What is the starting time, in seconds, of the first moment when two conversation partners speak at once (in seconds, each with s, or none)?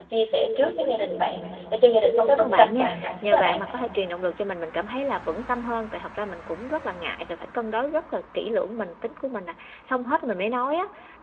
2.3 s